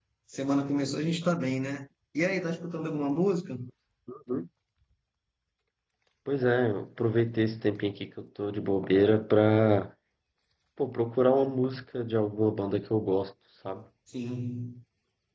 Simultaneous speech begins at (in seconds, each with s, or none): none